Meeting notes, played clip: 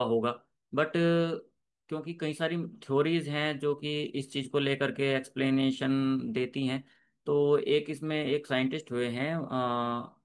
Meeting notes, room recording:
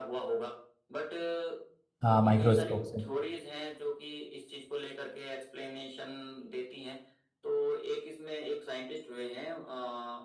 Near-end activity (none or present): present